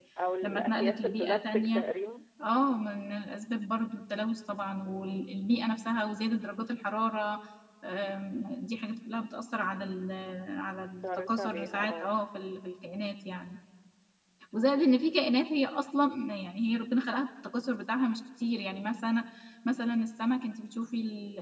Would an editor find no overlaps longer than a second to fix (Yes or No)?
No